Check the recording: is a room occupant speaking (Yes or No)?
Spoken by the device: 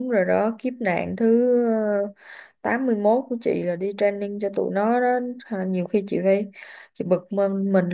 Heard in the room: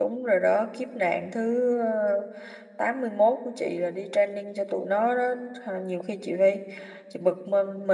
No